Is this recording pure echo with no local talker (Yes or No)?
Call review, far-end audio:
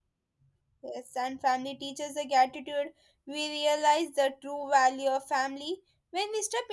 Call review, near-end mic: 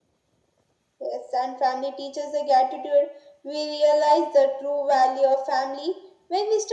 Yes